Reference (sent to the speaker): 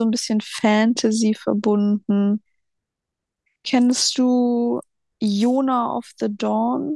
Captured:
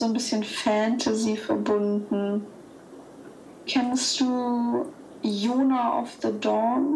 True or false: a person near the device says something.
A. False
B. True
A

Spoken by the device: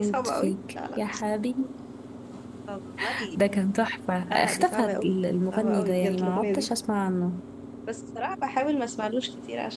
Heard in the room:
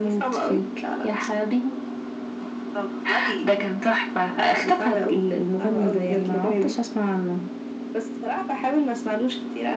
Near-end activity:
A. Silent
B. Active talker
A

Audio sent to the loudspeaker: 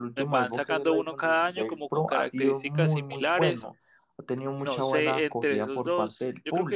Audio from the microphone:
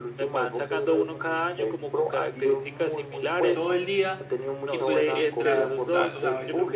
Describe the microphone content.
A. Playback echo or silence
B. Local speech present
B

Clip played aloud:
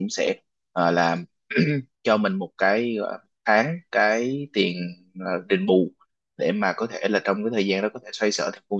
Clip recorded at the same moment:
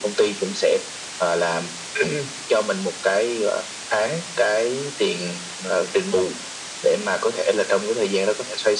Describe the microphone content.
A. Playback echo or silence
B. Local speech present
A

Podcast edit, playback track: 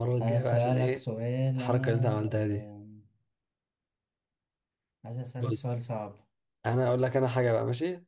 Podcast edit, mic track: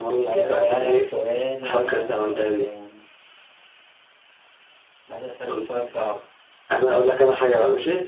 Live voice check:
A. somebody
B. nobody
B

